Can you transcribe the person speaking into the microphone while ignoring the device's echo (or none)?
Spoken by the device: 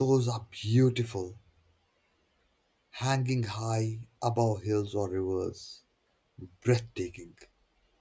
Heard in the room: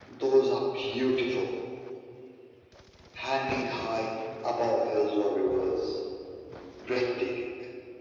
none